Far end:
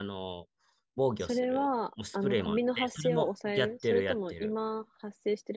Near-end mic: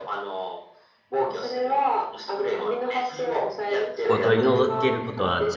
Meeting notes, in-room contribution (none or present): present